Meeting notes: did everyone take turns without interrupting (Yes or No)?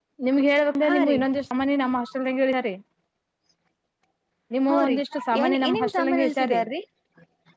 No